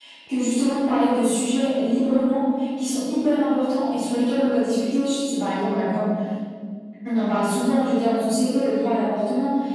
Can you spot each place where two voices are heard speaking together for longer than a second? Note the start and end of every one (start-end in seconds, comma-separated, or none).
none